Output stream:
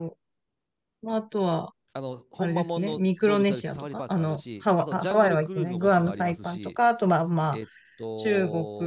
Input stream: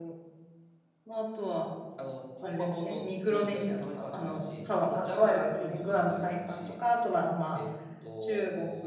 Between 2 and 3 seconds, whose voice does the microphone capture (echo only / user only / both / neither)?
echo only